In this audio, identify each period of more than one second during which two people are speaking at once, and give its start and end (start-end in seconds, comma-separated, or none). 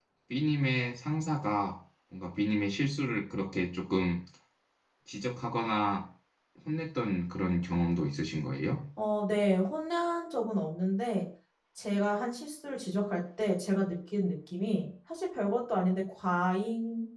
none